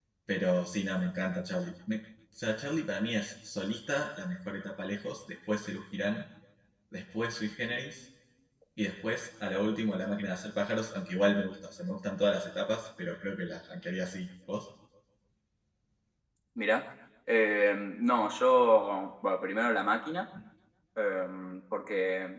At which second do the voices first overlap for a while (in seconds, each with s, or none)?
none